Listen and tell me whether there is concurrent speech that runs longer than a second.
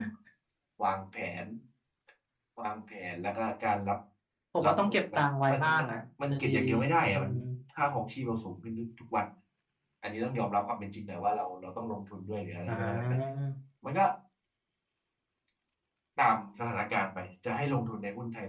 Yes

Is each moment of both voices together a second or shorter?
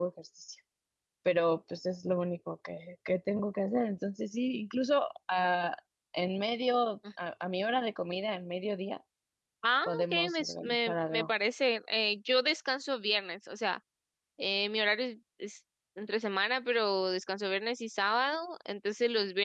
No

